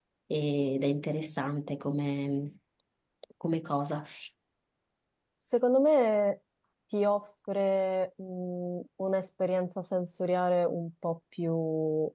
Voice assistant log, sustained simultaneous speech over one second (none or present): none